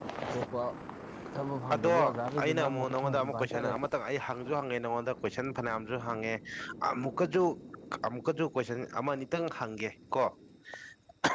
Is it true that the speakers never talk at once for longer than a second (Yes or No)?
No